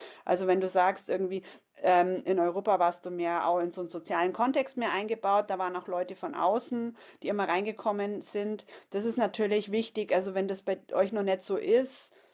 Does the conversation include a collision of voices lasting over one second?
No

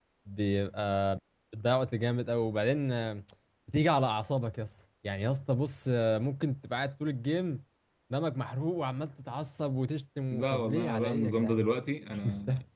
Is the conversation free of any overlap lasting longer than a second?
No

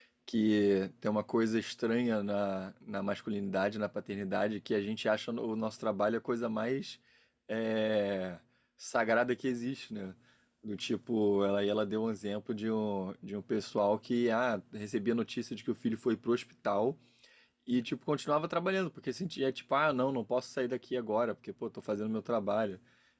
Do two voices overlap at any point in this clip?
No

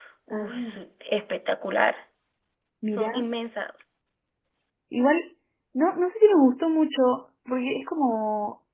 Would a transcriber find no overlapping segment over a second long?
Yes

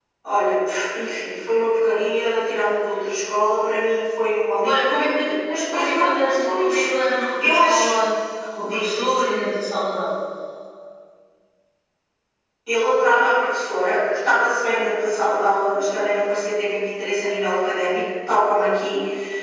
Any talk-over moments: Yes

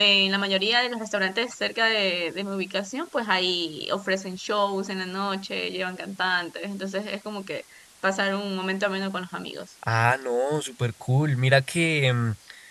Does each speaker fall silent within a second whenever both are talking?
Yes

